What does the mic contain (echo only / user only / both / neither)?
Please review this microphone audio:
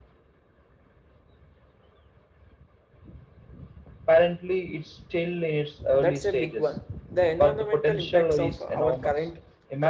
both